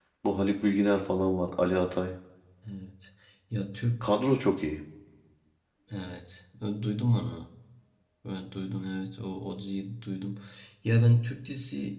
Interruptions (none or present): none